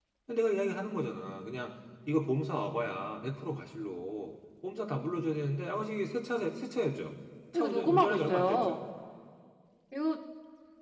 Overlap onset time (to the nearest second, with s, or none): 8 s